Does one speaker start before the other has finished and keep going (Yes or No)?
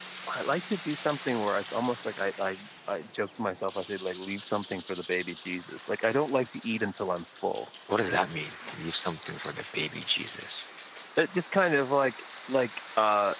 No